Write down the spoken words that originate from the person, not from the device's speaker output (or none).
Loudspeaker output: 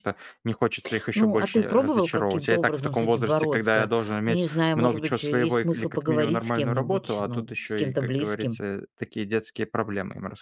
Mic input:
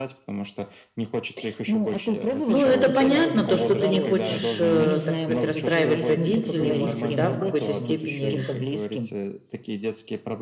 Ну, это понятно, то, что ты не хочешь, э, так сказать, расстраивать родителей, может быть, да, в какой-то степени